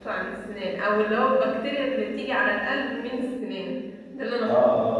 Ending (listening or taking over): taking over